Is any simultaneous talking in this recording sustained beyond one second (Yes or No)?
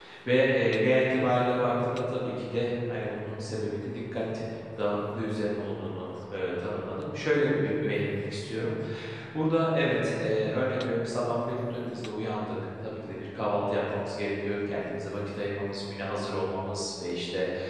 No